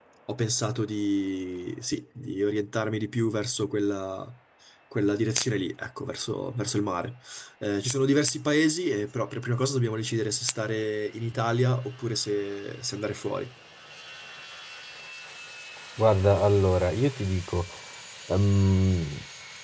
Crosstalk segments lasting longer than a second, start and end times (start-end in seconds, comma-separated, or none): none